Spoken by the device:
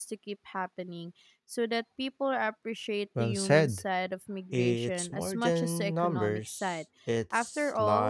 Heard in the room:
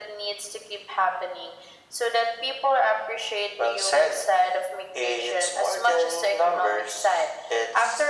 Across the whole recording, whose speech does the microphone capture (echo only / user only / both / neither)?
echo only